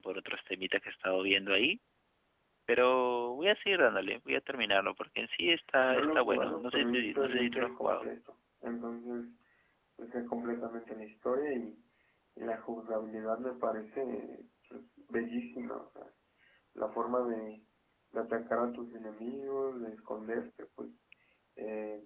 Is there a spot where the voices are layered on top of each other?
Yes, from 5.9 s

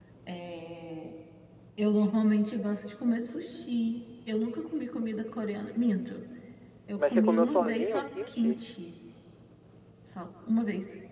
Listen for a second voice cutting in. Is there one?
Yes, from 7.0 s

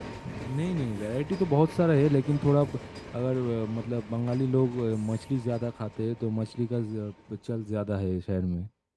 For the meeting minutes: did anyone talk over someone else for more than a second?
No

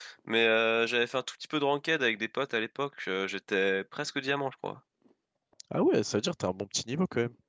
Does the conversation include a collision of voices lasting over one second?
No

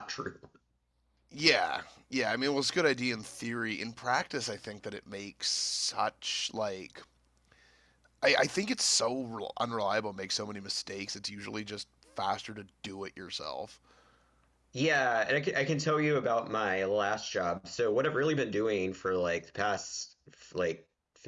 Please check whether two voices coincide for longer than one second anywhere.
No

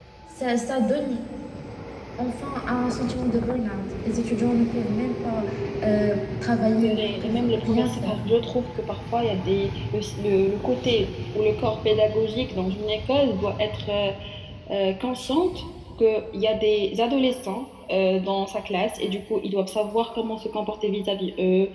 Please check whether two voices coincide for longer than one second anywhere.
Yes, from 6.8 s

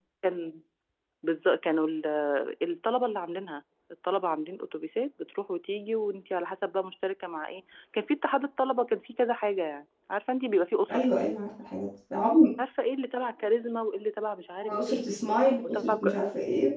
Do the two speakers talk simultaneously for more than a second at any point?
No

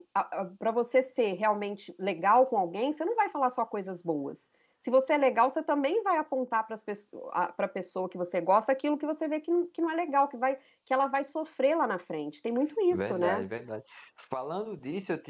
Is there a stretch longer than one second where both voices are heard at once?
No

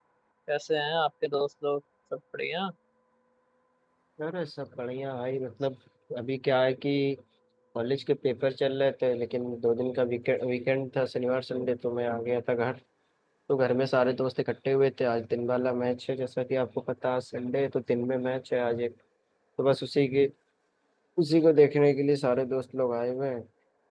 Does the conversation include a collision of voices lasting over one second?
No

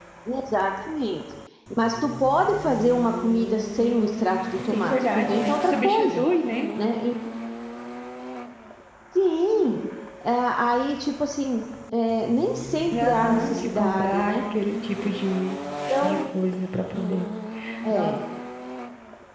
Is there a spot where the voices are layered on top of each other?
Yes, from 4.7 s

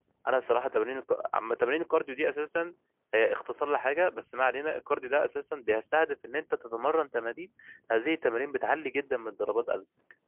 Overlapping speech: No

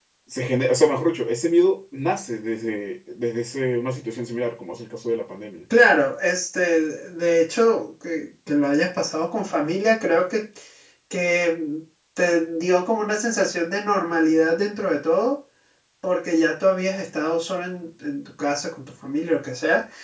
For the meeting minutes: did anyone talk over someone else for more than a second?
No

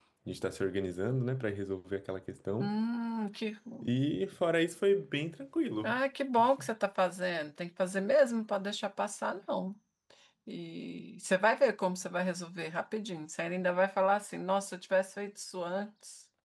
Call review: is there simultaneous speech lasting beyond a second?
No

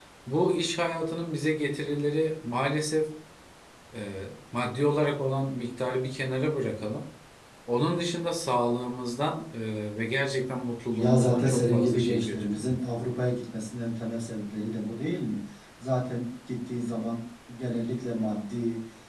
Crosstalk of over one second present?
Yes, from 10.9 s

